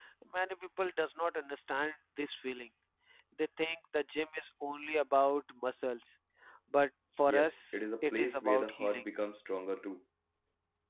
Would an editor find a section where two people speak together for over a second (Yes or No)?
Yes